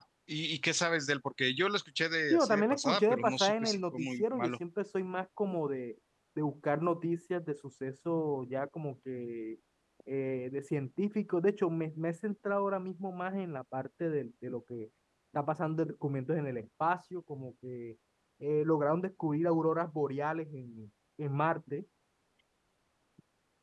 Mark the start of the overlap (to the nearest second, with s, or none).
2 s